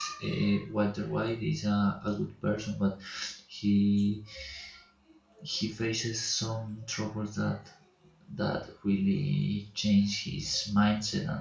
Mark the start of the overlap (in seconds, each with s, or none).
none